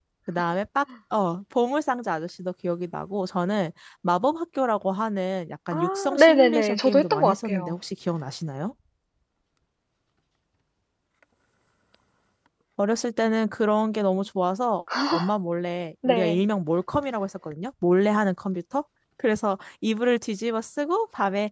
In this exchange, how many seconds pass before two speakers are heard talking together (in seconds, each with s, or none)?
5.7 s